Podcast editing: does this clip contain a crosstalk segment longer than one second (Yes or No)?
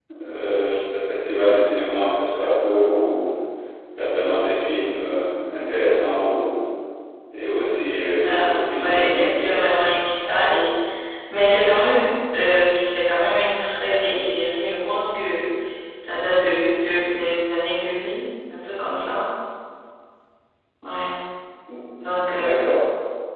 Yes